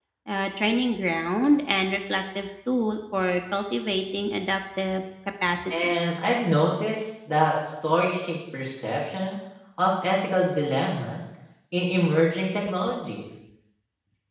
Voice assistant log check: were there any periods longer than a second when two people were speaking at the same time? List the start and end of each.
none

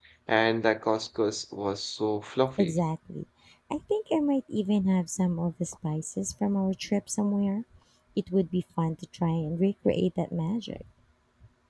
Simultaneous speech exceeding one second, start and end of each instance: none

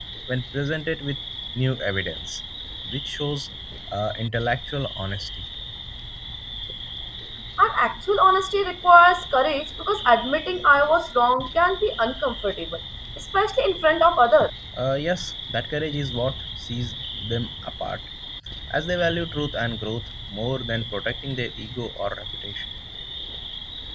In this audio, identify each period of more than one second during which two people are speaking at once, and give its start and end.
none

